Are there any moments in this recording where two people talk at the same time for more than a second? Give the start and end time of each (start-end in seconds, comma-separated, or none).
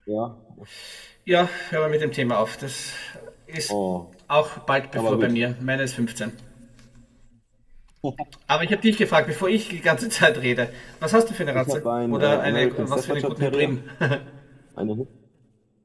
11.5-13.7